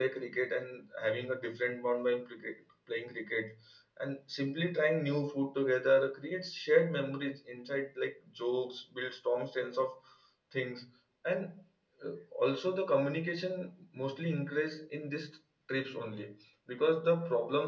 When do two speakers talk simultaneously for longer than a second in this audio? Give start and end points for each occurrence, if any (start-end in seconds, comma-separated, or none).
none